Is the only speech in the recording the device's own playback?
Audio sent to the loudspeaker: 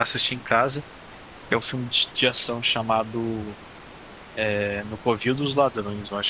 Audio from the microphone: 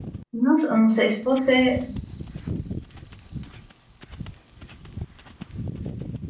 No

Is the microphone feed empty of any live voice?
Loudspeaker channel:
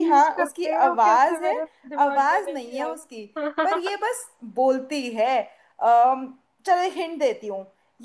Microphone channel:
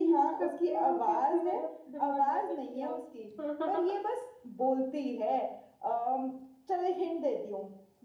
Yes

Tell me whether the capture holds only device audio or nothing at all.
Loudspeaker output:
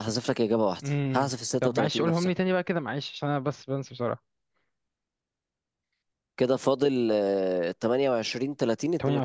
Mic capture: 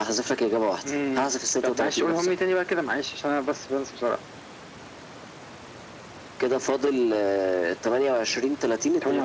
Yes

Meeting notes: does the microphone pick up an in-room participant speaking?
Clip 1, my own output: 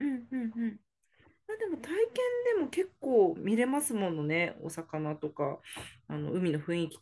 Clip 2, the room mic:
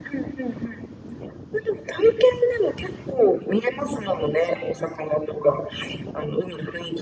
No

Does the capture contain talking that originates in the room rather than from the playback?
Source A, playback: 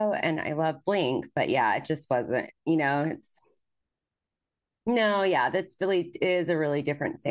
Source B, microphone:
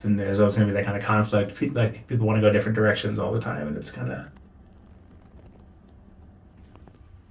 Yes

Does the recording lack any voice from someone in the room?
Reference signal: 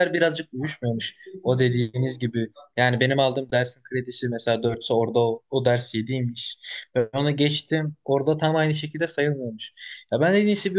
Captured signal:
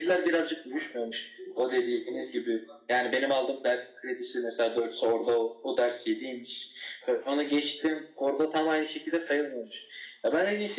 Yes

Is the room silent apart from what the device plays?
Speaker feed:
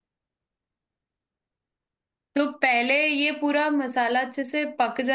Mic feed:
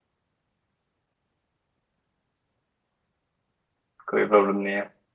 No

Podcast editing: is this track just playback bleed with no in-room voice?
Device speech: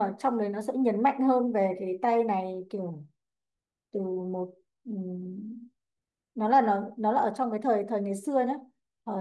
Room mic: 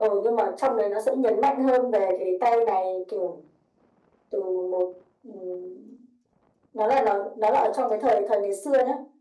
Yes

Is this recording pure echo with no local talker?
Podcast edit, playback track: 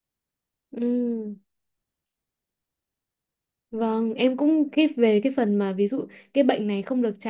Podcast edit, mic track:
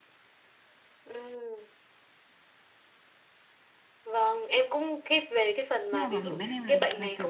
No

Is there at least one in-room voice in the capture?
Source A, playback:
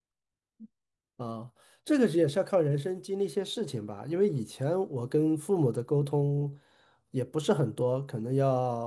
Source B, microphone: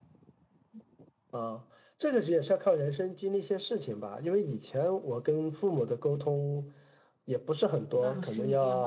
Yes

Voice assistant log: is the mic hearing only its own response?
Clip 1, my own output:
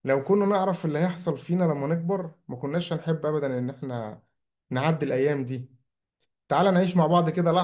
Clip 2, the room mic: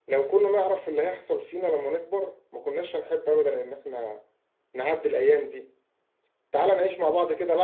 Yes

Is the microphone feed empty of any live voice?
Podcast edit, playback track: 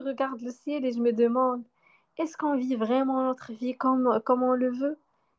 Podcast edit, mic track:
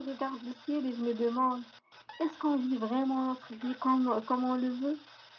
Yes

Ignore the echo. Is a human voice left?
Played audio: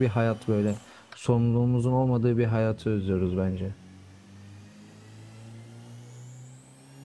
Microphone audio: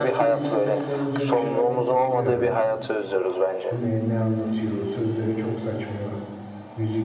Yes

